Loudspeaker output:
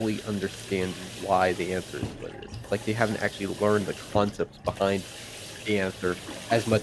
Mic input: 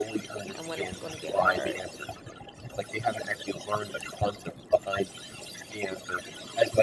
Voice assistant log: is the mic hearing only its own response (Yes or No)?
No